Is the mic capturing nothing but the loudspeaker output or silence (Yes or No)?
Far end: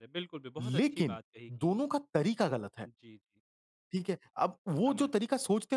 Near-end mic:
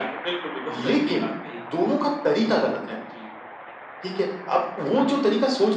Yes